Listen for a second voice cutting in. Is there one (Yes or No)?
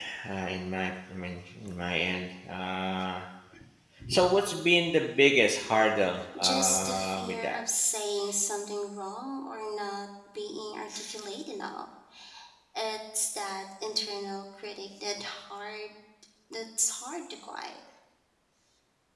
Yes